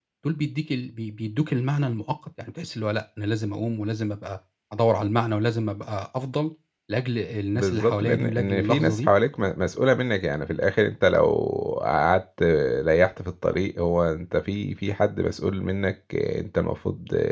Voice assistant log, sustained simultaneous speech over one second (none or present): present